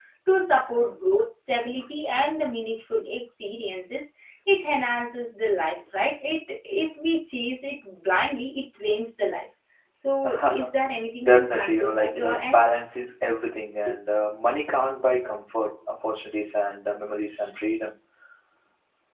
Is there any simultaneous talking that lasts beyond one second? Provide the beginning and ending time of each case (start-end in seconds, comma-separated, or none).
11.2-12.6